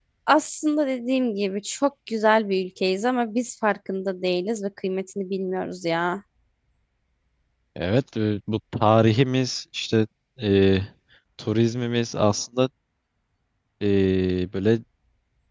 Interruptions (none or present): none